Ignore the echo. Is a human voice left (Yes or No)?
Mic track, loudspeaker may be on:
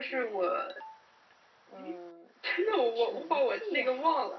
No